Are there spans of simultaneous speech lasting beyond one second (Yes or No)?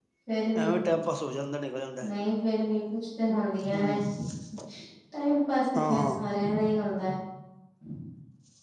No